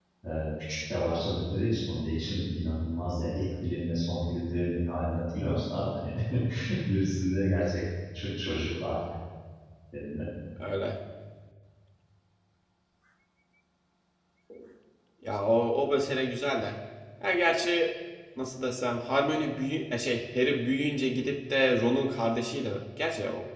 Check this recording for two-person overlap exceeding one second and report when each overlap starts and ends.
none

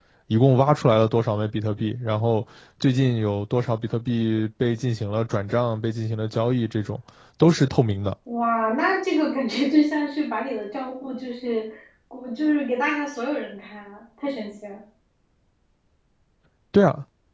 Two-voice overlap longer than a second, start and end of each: none

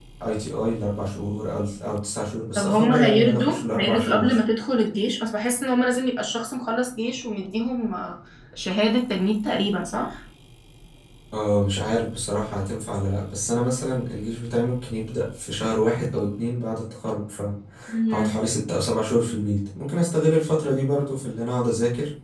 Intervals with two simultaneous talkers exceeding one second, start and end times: 2.5-4.3

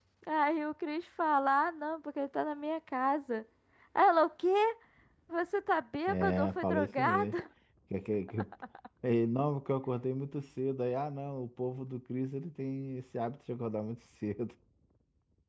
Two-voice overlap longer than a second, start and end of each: 6.1-7.4

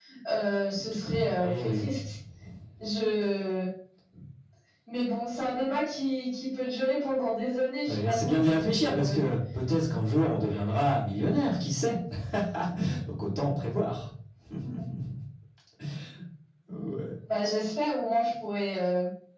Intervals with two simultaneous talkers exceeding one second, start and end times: 7.9-9.3

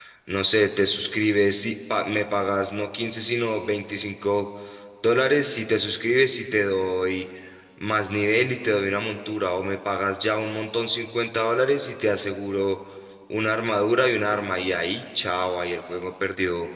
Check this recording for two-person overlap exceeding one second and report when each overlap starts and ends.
none

